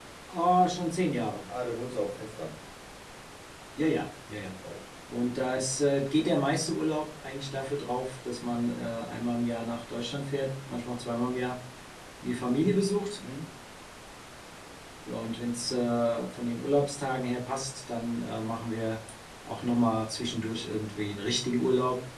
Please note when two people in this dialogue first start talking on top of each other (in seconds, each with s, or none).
none